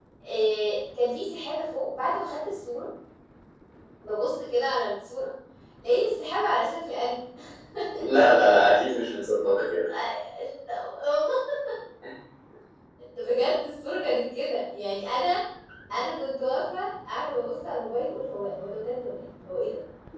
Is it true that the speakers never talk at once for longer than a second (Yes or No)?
Yes